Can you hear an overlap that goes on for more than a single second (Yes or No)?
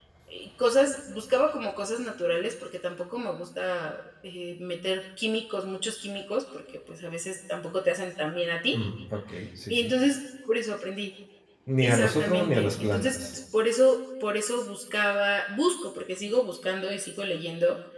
Yes